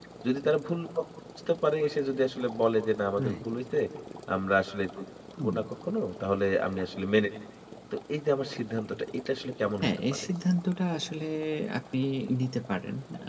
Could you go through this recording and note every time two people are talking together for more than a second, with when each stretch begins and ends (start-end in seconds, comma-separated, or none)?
none